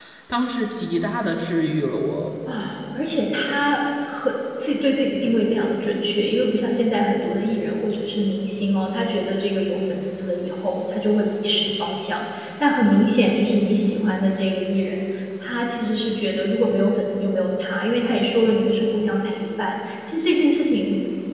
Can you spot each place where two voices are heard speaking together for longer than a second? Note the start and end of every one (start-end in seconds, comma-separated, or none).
none